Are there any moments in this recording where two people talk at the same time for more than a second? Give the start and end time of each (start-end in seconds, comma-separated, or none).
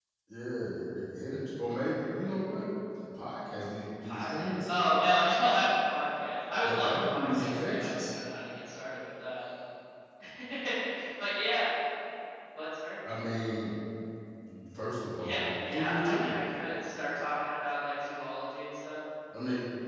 4.0-5.6, 6.6-8.0, 15.2-16.5